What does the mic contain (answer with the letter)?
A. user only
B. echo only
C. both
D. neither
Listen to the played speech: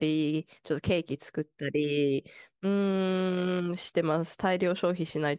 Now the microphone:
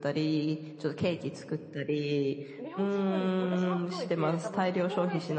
C